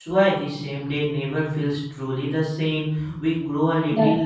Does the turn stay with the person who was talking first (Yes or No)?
Yes